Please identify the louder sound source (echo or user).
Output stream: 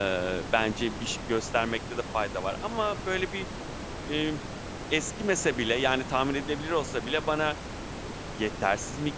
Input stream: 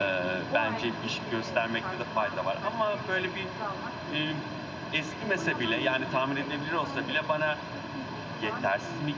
echo